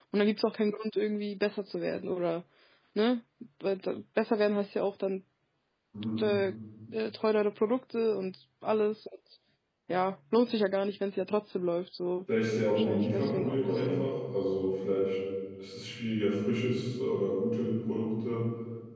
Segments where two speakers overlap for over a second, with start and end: 12.8-14.1

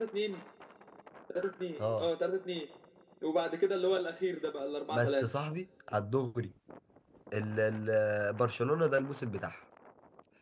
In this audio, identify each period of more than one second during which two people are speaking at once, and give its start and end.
none

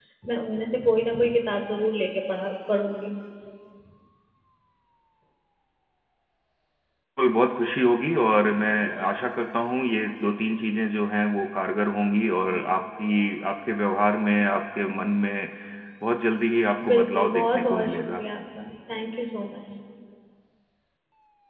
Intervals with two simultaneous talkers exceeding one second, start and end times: 16.9-18.2

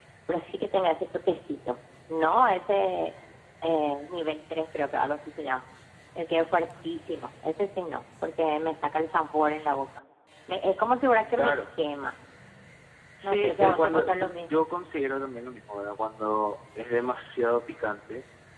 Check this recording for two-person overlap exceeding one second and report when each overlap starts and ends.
13.2-14.6

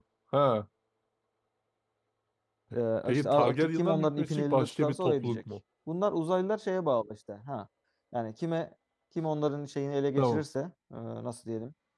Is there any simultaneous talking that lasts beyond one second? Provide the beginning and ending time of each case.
3.1-5.4

